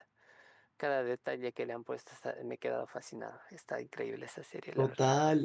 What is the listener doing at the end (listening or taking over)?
taking over